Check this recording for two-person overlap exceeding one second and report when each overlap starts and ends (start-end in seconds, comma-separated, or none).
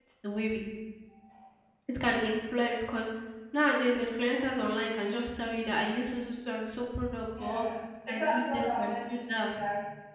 8.1-9.5